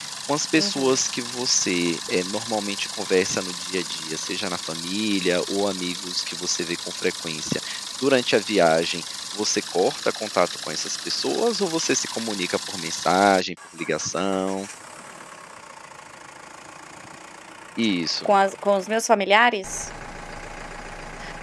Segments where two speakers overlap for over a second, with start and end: none

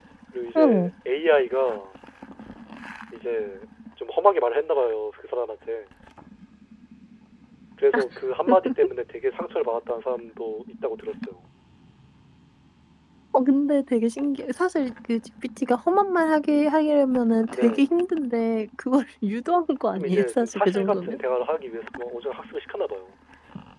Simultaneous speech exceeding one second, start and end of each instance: 19.9-21.2

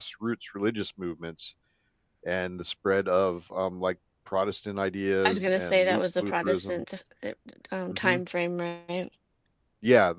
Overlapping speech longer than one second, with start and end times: 5.2-6.8

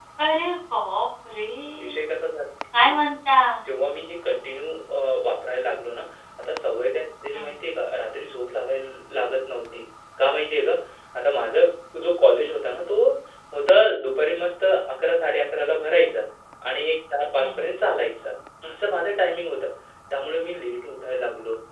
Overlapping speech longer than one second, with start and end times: none

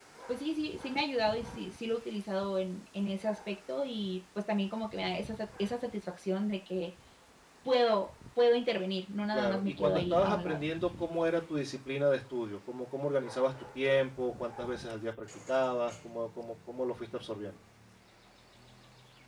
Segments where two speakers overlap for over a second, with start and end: 9.3-10.6

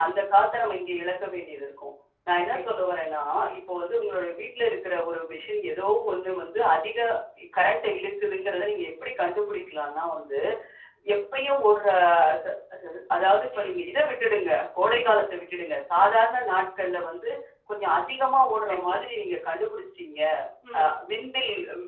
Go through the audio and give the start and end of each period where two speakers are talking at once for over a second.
none

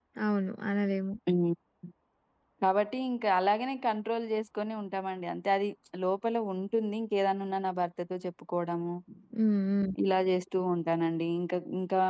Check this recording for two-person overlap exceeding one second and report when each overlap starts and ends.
none

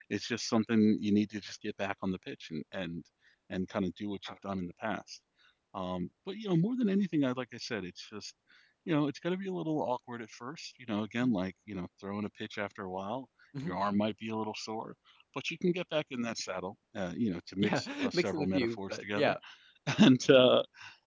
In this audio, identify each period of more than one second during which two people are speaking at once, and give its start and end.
17.6-19.3

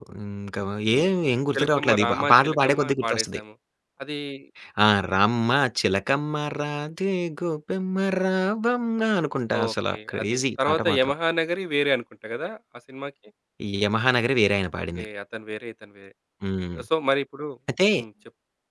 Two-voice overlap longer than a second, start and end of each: 1.5-3.4, 9.6-11.1

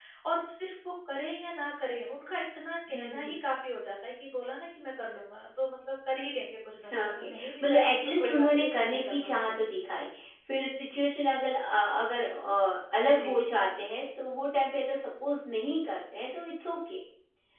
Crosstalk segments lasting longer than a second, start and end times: 7.0-9.4

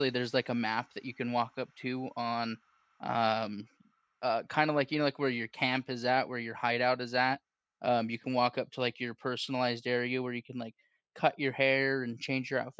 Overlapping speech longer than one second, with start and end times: none

